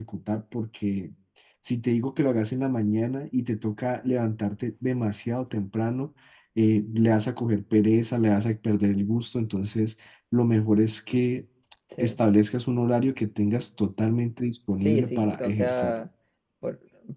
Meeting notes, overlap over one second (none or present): present